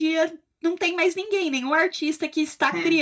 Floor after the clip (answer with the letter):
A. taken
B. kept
B